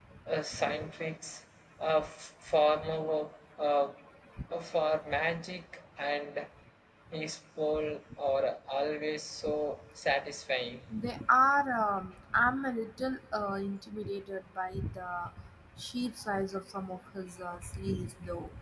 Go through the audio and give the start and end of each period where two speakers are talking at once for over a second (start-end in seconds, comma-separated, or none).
none